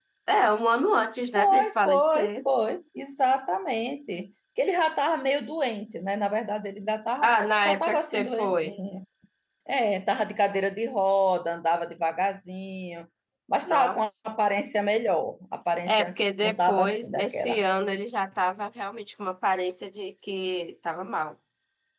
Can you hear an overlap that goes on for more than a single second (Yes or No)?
Yes